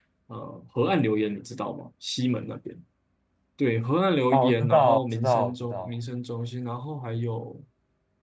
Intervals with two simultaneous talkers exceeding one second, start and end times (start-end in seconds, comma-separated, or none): 4.3-5.9